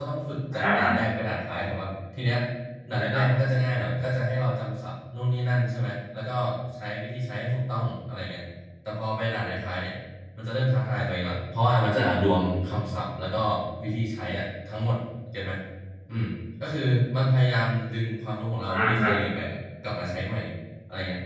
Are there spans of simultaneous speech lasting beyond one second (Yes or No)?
No